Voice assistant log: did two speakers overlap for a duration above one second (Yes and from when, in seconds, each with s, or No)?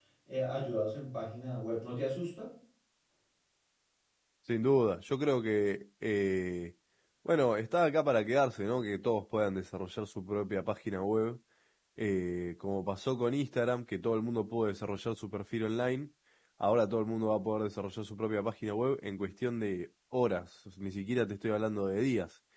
No